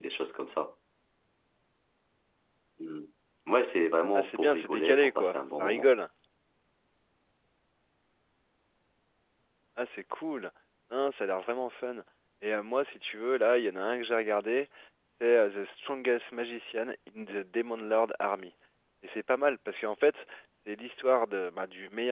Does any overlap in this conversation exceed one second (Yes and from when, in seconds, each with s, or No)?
Yes, from 4.1 s